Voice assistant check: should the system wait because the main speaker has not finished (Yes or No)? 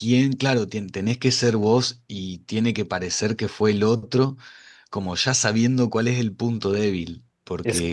Yes